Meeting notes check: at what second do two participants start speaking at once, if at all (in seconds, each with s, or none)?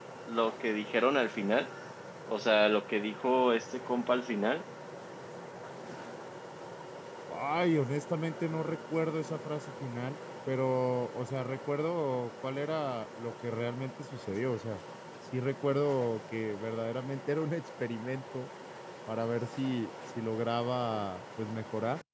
none